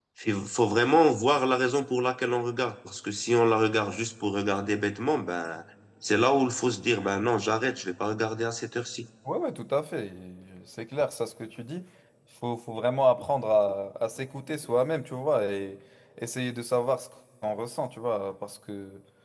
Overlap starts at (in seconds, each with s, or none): none